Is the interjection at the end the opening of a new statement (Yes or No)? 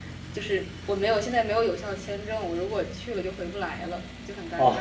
Yes